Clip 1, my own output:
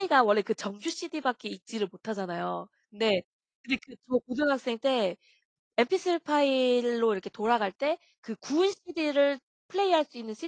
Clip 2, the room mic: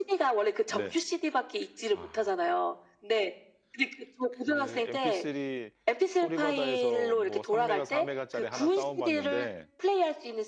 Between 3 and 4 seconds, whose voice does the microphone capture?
echo only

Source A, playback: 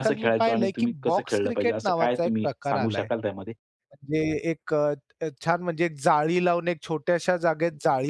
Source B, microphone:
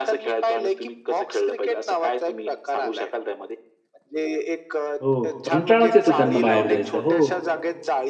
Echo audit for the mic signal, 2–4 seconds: echo only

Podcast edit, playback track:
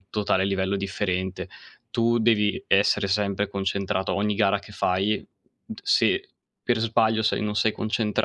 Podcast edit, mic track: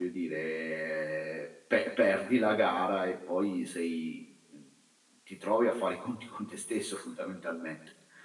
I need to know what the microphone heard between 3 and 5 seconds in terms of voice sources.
user only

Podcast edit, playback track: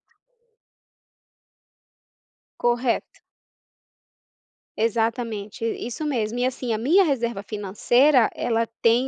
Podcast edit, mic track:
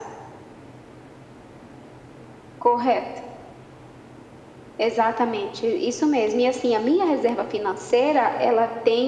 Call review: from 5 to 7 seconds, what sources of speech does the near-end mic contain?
echo only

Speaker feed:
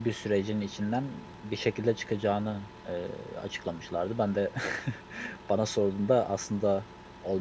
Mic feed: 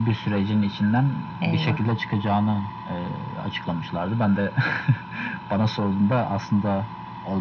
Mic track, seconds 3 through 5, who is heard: echo only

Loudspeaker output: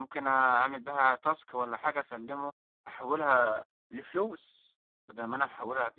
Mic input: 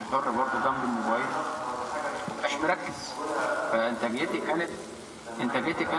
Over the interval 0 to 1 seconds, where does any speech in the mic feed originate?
both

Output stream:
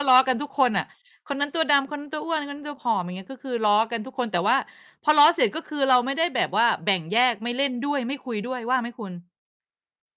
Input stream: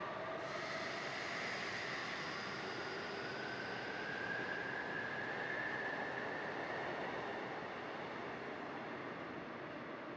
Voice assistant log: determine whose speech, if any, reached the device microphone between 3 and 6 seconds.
neither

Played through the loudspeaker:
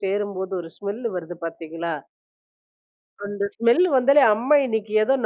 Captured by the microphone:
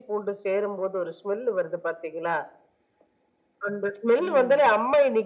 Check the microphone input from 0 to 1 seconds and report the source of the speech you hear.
echo only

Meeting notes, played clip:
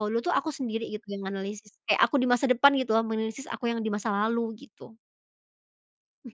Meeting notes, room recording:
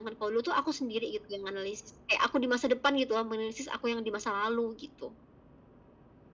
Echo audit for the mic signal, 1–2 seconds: echo only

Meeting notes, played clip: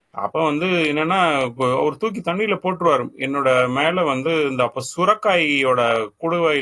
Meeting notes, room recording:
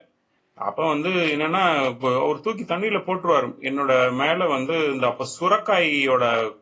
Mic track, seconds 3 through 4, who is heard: echo only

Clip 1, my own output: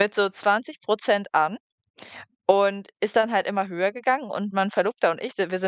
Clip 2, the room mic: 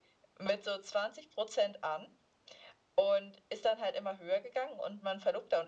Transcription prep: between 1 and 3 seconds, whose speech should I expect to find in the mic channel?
echo only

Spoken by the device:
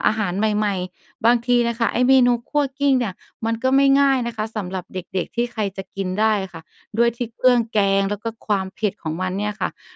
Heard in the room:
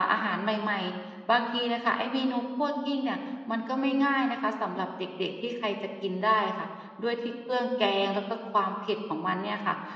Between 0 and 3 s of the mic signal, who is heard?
echo only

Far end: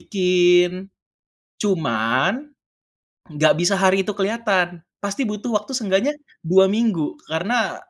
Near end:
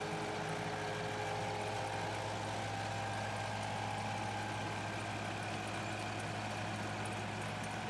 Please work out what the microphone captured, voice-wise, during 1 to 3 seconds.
neither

